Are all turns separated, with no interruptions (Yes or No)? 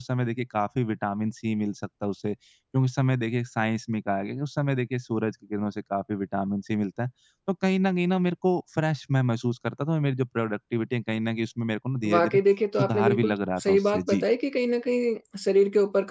No